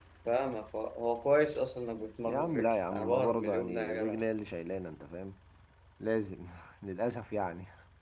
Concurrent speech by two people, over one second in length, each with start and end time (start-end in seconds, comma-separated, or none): 2.2-4.2